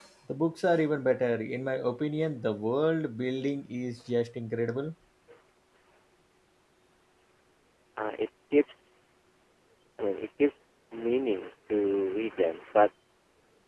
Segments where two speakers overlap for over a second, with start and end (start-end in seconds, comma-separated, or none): none